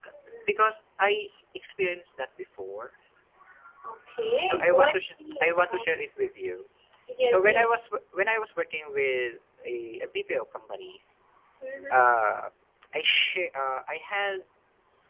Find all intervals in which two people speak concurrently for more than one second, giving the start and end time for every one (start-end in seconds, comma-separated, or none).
4.4-5.9